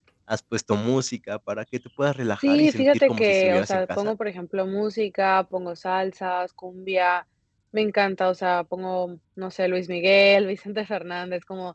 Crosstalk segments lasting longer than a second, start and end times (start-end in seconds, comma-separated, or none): 2.4-4.1